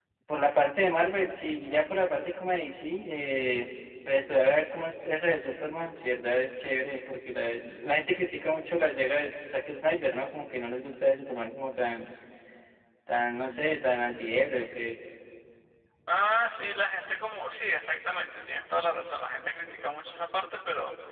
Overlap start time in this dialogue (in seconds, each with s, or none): none